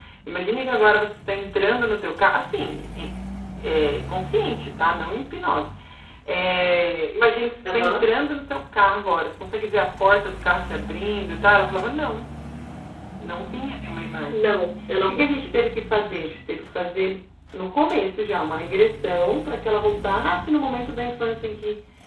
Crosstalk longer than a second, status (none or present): none